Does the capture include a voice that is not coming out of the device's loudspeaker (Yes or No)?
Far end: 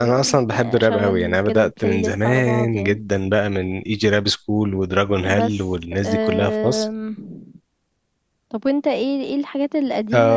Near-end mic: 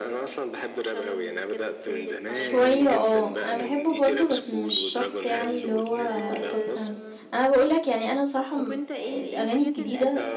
Yes